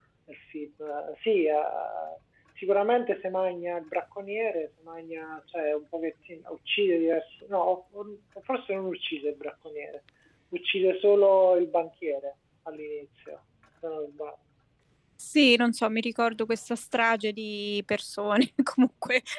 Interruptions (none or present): none